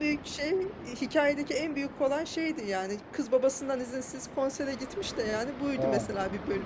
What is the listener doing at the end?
listening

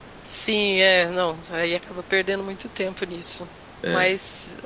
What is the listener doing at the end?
listening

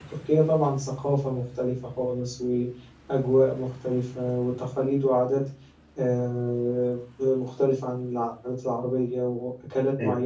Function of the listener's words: listening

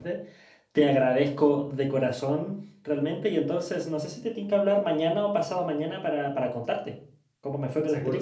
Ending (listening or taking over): taking over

